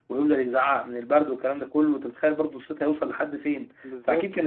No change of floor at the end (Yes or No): No